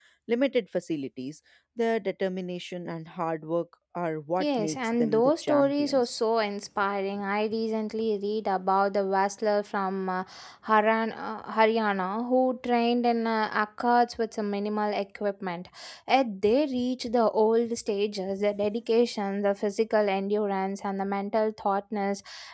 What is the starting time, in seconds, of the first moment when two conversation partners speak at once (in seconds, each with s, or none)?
4.4 s